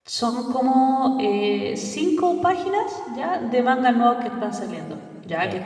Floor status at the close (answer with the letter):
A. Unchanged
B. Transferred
A